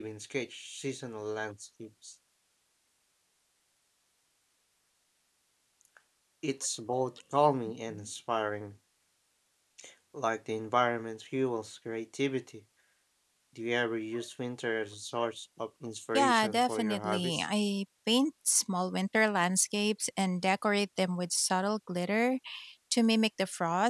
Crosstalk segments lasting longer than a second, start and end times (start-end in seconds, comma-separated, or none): 16.1-17.5